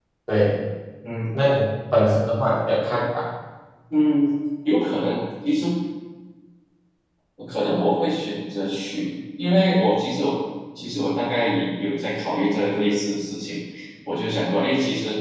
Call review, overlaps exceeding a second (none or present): none